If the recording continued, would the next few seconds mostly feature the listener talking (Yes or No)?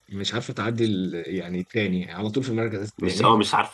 Yes